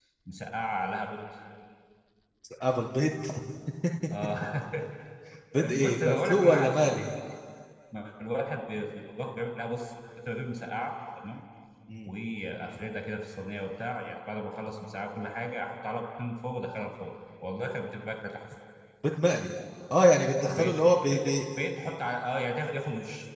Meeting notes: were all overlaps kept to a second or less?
No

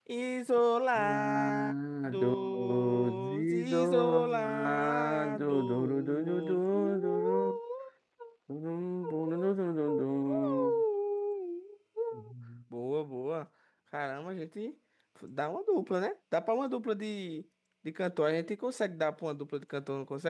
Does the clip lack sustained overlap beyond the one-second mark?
No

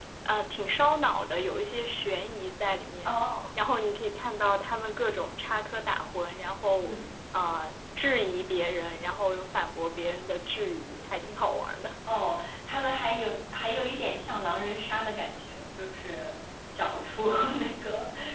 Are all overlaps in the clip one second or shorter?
Yes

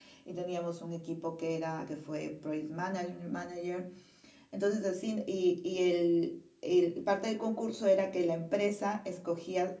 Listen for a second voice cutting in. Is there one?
No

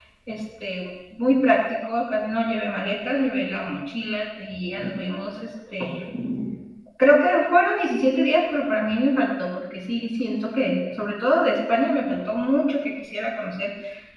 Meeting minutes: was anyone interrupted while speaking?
No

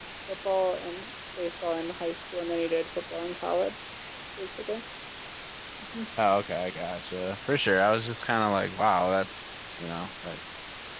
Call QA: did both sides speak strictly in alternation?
Yes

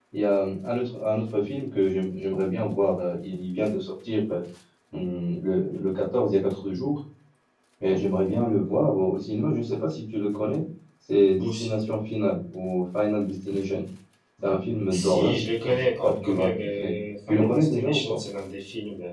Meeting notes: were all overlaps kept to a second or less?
No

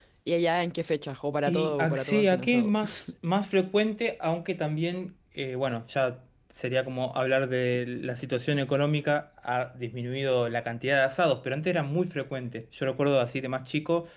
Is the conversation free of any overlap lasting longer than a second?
No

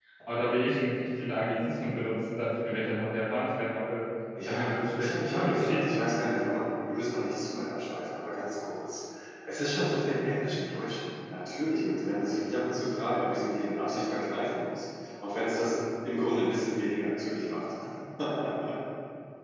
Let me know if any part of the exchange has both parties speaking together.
Yes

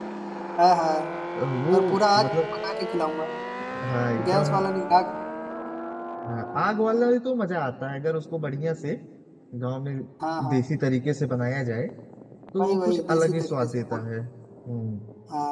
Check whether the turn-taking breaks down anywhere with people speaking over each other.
Yes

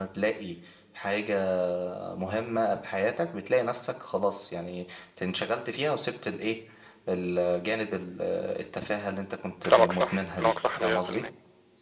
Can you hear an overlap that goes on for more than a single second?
Yes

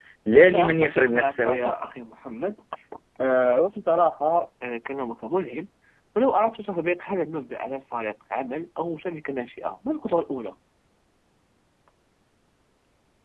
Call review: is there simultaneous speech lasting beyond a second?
Yes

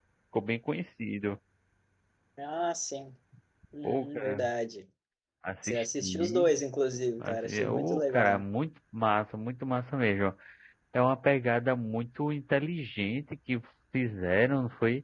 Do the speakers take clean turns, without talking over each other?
No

